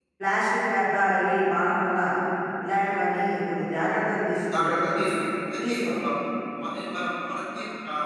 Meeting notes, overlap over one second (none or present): none